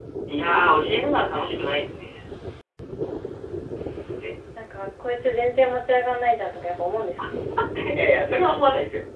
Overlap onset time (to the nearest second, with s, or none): none